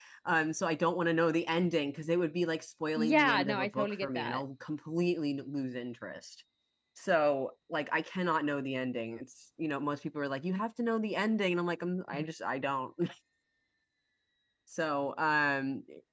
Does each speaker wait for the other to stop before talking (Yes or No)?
No